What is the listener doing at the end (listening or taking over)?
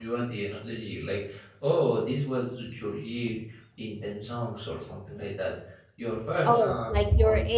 taking over